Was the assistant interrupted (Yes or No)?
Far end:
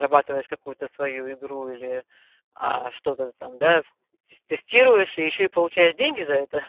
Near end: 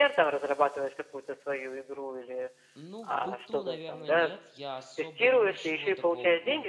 Yes